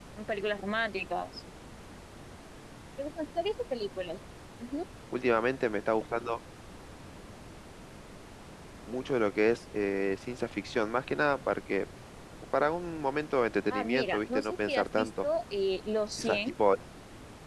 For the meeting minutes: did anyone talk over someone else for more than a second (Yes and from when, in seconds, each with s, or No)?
Yes, from 13.7 s